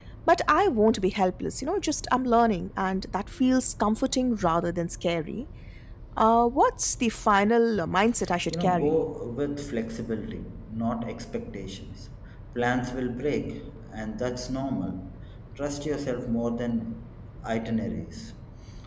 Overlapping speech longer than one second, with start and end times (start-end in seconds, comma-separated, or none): none